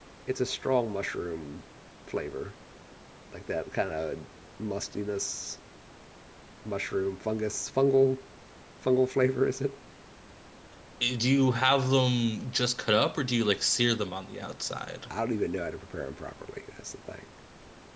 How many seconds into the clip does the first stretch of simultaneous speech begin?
none

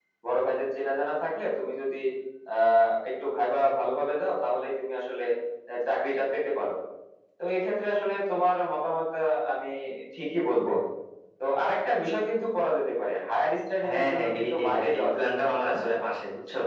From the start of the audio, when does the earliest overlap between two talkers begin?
13.8 s

